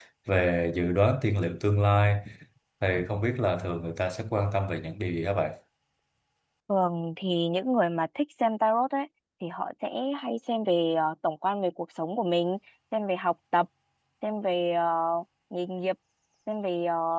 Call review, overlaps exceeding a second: none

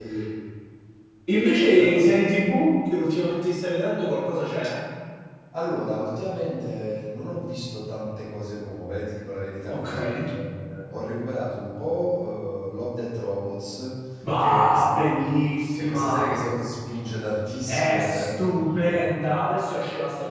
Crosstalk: present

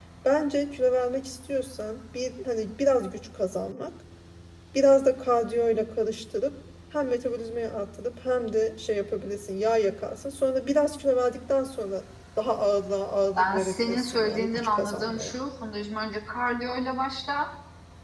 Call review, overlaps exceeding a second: present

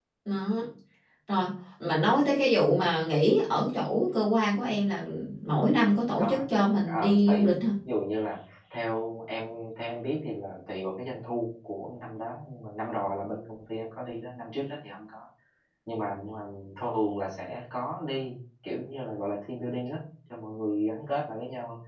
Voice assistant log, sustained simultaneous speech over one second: present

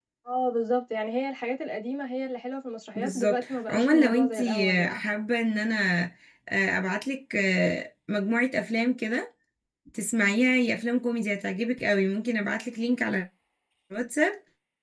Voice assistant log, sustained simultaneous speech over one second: present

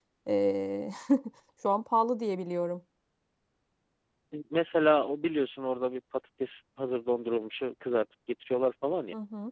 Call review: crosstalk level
none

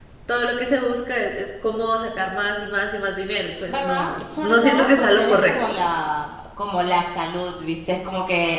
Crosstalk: present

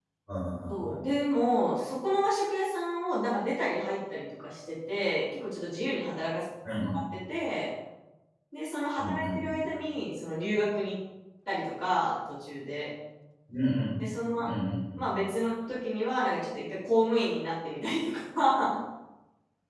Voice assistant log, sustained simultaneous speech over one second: none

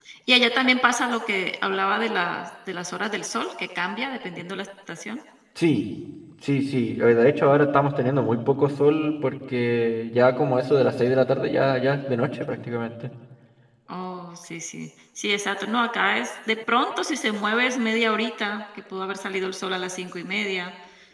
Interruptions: none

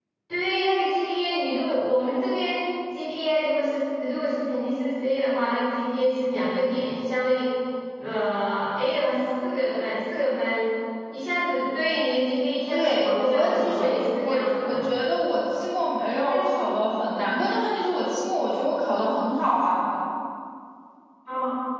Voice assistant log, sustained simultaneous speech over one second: present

